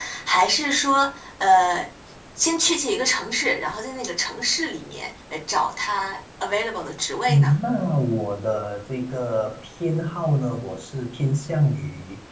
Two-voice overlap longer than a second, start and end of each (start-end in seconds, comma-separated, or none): none